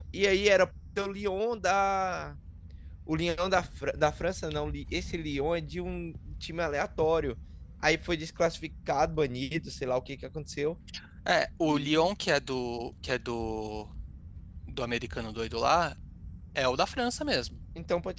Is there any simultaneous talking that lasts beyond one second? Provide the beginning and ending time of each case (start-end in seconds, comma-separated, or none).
none